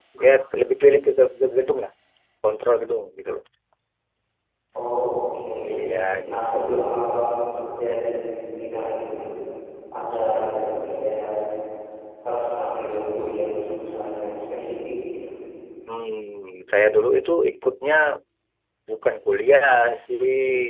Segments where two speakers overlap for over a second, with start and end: none

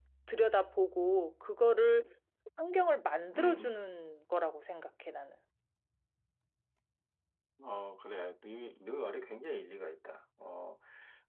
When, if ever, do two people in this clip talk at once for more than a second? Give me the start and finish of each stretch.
none

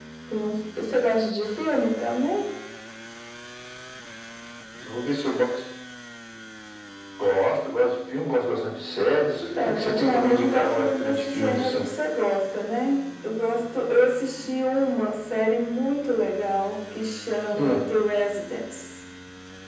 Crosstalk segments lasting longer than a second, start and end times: 9.6-11.9

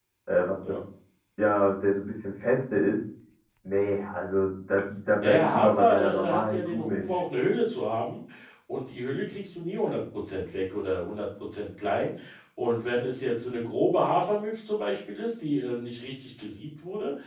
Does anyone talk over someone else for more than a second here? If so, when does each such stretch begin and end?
5.2-7.2

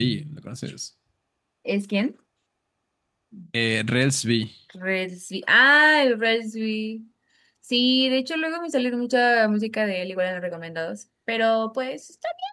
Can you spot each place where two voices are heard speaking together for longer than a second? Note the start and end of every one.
none

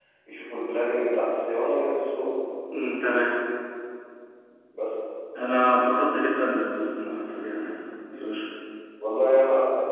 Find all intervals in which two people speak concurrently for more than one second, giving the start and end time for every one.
none

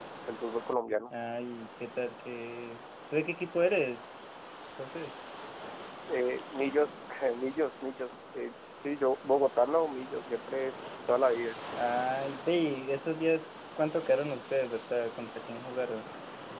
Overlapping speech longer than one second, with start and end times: none

